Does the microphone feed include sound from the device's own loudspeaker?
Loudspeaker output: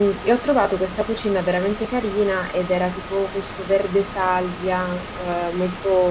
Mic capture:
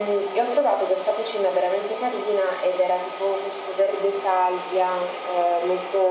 Yes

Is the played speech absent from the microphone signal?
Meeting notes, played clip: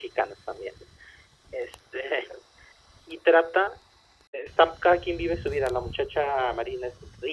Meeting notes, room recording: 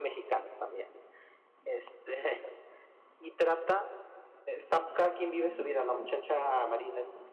No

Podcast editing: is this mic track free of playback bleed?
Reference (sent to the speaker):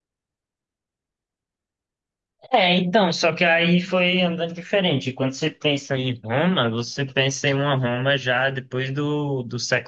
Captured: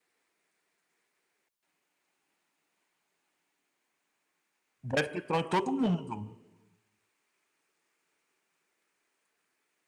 Yes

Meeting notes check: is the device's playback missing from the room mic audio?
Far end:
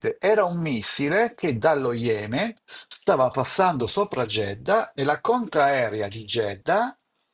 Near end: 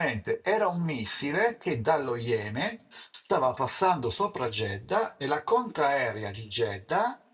No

